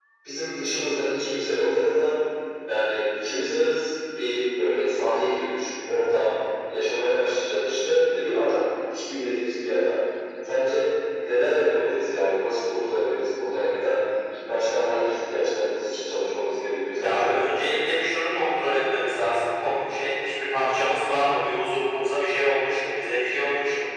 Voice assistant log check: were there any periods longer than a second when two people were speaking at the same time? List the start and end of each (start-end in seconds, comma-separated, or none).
none